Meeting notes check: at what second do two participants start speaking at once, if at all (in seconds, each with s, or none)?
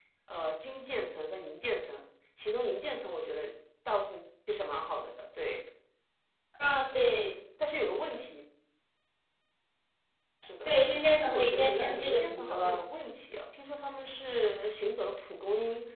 11.2 s